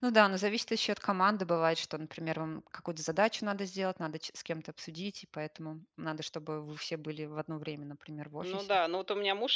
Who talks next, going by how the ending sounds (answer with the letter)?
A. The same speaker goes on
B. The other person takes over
B